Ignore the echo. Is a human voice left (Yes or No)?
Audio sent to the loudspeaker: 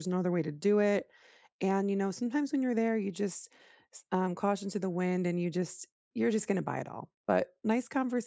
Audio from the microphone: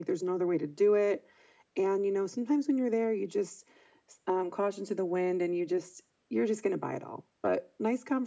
No